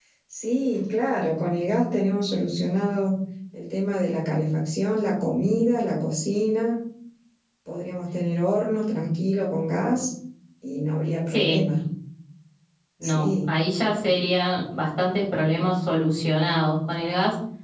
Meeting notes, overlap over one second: none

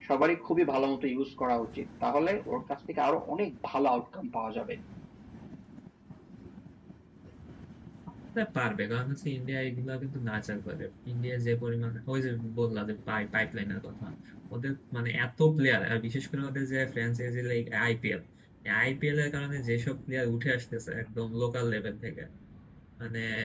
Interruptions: none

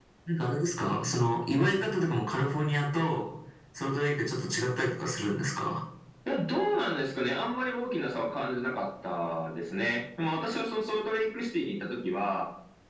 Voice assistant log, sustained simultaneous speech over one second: none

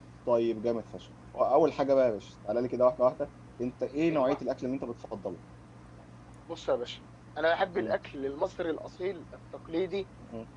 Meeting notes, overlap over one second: none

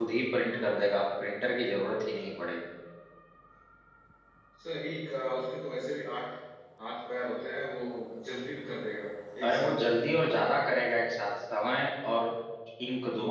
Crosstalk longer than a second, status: none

